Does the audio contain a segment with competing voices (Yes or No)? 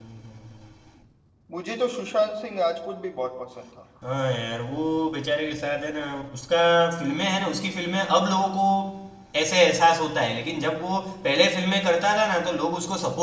No